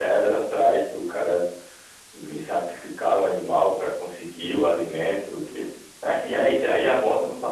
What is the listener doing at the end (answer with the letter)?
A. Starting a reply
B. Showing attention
B